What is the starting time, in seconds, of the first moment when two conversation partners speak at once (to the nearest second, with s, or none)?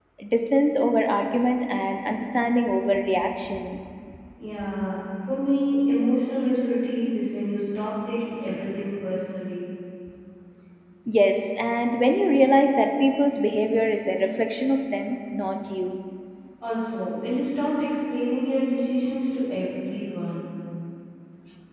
none